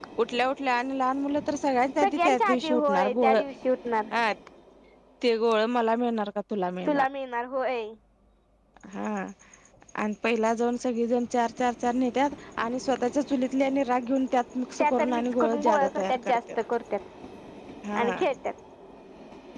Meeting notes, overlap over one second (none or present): present